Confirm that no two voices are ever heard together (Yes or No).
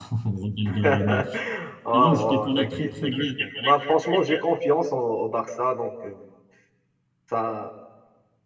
No